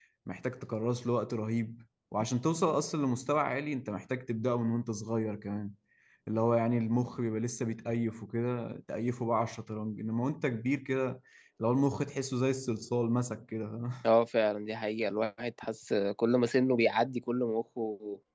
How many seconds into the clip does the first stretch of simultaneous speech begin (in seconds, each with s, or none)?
none